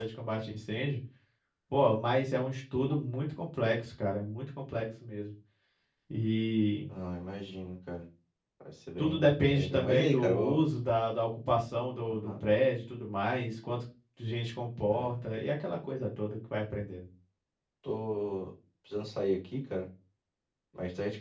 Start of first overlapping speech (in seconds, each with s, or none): 9.0 s